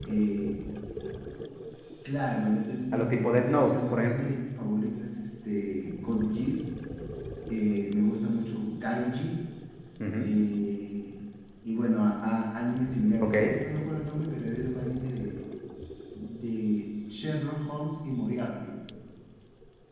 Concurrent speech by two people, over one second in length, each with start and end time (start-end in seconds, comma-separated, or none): 2.9-4.3